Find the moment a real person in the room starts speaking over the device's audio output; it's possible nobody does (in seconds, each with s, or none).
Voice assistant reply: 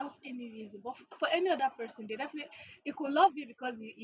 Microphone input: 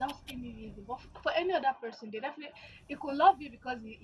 none